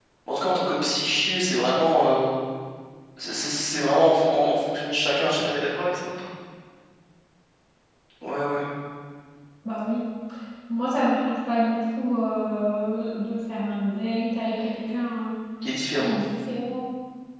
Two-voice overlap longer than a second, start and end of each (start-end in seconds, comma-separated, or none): none